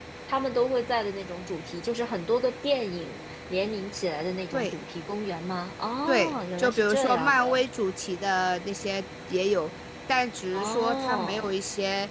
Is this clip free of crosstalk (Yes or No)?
No